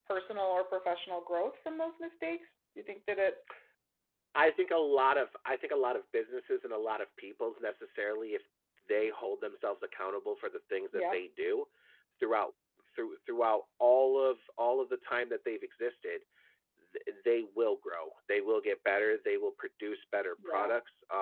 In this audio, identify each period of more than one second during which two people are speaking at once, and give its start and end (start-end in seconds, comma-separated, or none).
none